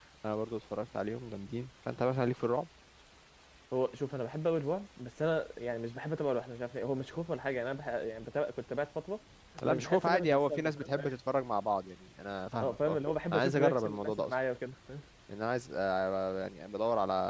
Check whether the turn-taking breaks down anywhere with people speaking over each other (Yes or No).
Yes